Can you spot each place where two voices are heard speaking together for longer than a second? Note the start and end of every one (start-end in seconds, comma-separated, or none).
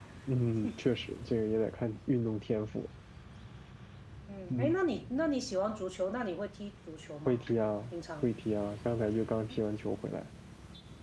none